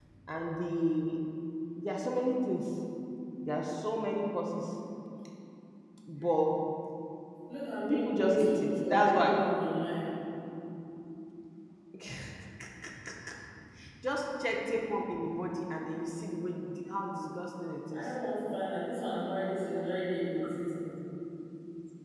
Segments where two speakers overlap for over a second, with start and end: 7.9-9.4

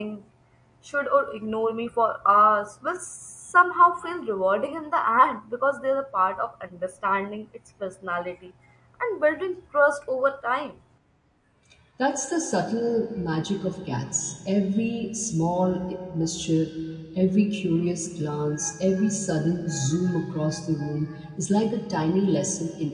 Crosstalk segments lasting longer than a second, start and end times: none

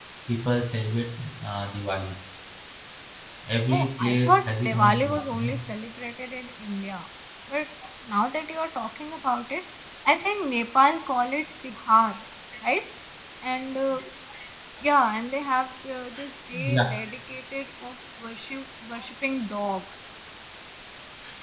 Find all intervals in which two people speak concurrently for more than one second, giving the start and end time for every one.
3.7-5.5

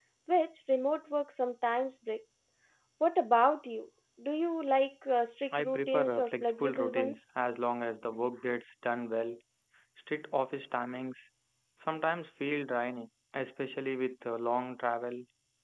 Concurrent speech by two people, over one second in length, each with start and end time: 5.5-7.2

